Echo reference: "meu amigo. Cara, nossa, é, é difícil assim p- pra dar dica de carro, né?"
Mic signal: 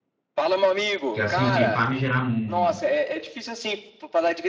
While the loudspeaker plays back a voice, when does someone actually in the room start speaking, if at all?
1.1 s

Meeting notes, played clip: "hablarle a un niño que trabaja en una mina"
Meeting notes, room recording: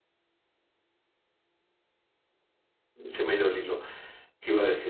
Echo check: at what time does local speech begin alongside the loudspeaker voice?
3.1 s

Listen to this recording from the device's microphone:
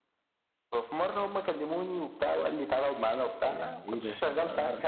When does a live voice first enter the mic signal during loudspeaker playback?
3.4 s

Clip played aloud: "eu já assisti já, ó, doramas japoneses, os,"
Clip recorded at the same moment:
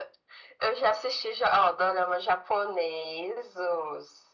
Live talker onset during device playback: none

